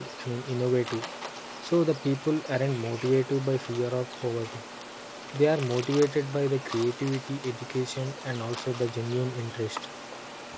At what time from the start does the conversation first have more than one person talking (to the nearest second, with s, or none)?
none